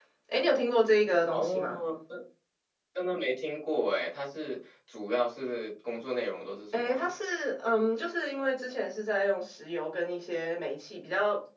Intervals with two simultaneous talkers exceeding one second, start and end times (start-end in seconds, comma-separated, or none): none